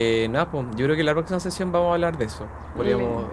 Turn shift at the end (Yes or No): No